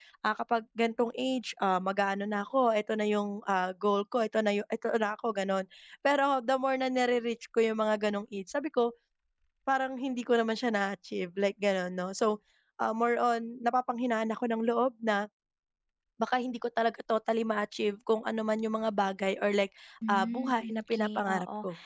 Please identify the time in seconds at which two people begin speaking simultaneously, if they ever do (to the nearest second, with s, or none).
20 s